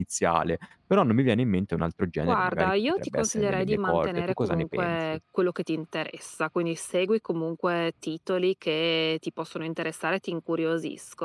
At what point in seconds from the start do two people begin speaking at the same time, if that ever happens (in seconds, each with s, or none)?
2.2 s